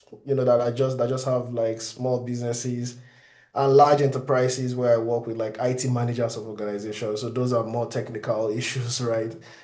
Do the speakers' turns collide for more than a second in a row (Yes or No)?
No